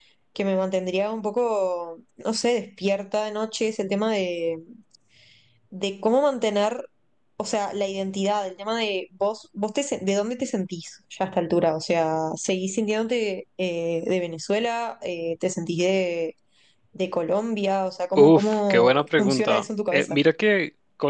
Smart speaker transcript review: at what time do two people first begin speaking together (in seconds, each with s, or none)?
18.2 s